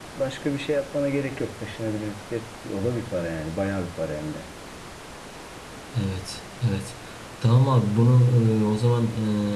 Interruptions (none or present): none